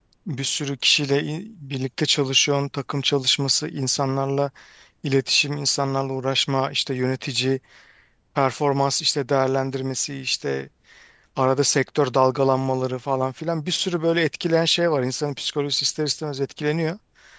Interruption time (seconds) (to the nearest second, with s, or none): none